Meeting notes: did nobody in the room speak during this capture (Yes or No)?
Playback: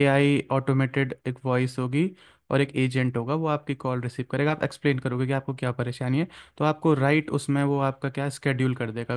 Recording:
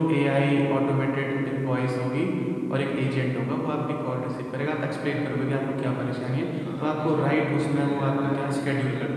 No